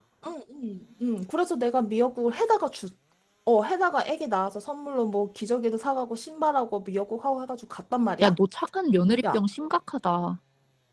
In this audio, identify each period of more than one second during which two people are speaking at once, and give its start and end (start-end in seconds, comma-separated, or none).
none